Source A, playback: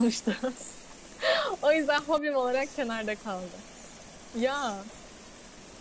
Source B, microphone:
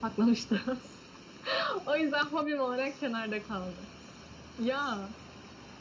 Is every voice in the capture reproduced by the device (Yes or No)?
Yes